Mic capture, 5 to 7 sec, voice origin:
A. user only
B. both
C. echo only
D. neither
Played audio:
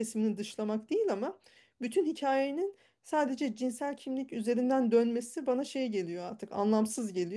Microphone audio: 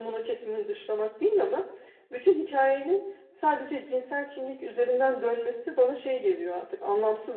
C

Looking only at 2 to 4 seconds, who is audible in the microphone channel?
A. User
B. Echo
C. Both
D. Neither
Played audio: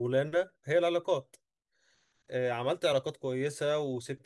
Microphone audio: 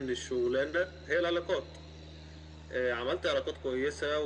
B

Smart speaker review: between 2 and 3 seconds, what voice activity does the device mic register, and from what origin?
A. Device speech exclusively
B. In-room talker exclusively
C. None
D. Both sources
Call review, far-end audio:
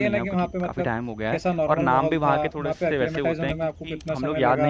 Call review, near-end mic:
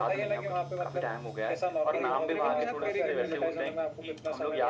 D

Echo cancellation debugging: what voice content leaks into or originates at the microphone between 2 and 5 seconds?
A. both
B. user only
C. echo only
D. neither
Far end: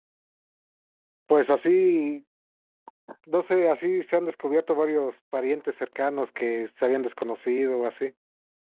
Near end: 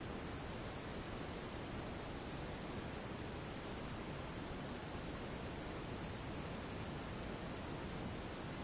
D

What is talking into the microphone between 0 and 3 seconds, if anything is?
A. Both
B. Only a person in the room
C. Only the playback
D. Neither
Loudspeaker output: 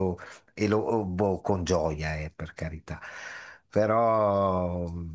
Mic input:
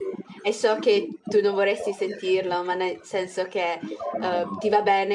A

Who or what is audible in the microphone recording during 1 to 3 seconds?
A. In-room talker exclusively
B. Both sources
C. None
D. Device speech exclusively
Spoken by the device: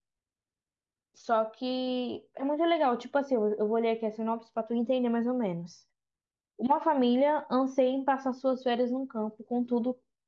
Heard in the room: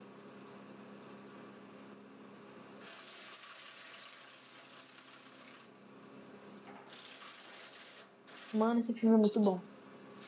C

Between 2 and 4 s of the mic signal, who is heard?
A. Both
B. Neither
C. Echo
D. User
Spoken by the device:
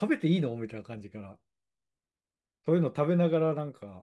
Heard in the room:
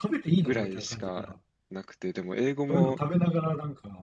A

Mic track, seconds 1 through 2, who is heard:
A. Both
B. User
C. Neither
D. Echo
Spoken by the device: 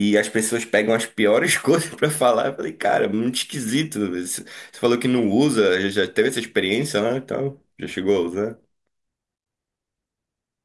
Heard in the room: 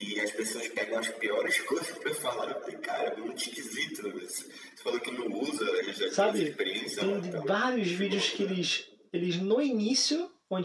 D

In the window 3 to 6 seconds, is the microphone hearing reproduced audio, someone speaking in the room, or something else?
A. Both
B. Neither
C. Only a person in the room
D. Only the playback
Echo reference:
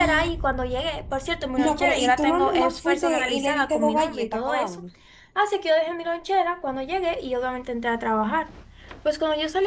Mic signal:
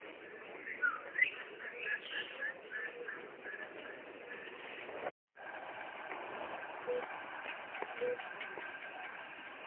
B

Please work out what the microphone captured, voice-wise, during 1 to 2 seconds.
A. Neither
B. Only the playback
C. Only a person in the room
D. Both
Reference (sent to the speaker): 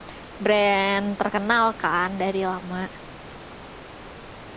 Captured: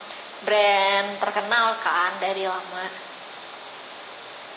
B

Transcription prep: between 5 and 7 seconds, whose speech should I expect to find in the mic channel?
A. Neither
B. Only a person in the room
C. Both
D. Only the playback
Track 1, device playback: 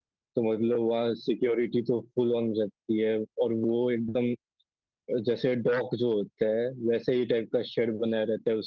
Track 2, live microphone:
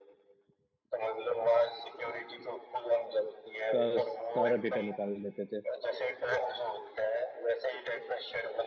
C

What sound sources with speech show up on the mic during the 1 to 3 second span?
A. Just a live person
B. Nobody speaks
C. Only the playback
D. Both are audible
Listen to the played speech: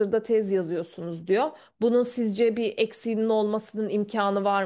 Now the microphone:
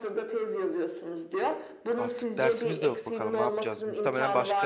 D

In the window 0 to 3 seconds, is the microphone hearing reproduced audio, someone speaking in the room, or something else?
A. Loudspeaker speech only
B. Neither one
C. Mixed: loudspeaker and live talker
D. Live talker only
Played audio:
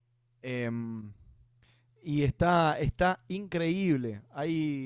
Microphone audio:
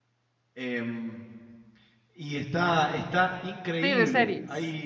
A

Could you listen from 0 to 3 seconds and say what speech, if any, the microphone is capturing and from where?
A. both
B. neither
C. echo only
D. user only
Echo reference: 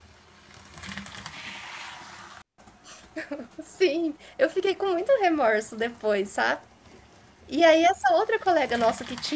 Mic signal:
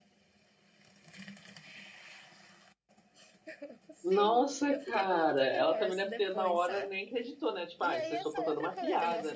B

